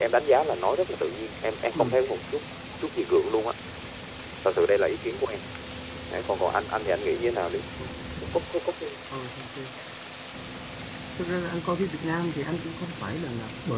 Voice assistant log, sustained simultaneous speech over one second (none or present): none